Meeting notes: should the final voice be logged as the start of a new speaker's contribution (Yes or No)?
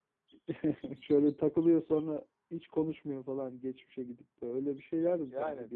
Yes